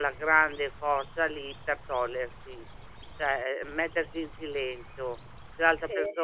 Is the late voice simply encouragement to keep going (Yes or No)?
Yes